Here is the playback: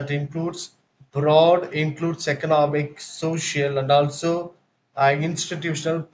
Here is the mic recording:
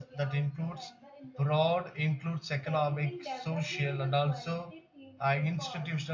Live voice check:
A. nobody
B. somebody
B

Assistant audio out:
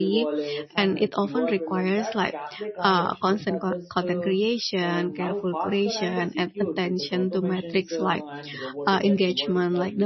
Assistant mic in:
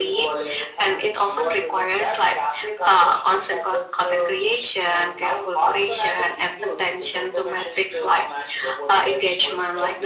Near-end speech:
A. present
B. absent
B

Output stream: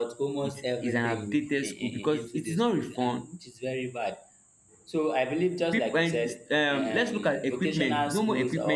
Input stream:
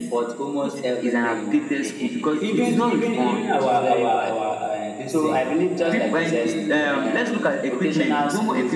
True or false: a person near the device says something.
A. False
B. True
B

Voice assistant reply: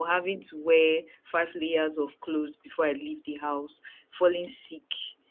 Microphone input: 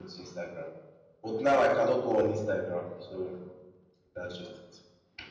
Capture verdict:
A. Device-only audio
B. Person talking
B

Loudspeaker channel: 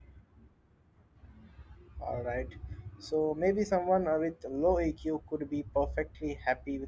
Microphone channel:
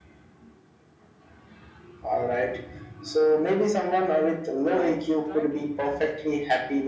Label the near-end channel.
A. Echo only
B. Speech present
B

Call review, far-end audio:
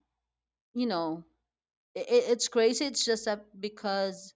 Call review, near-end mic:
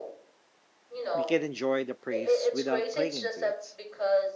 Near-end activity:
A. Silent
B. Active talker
B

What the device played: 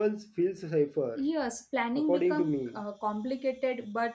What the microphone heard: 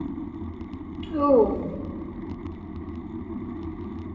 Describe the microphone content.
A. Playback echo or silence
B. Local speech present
B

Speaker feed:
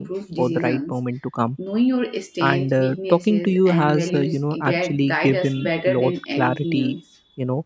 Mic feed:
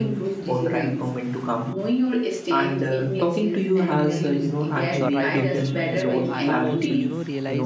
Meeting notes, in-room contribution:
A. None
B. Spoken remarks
B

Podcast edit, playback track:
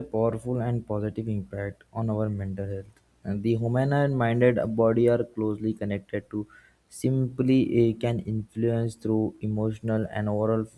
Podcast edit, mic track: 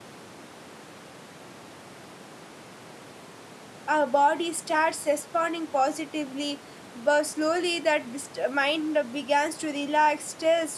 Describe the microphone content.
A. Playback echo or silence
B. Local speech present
B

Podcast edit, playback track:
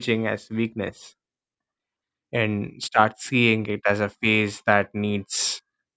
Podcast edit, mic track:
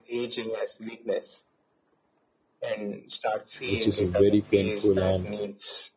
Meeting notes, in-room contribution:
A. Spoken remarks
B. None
A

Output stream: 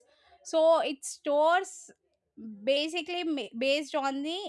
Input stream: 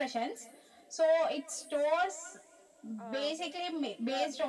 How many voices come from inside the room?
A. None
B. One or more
B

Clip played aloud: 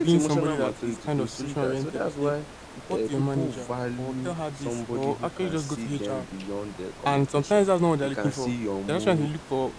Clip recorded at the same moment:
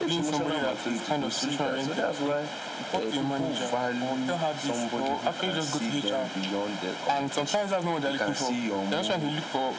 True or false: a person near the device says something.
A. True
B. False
B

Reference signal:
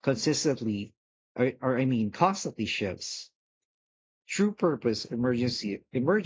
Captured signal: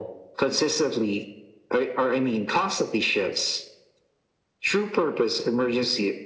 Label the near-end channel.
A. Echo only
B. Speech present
A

